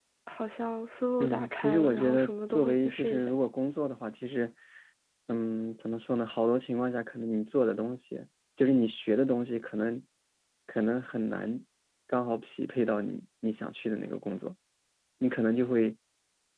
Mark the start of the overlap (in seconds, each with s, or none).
1.2 s